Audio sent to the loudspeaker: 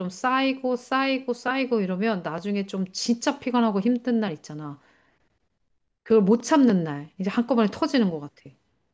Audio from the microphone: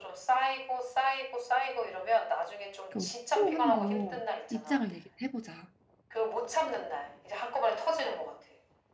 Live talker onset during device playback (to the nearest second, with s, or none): 3 s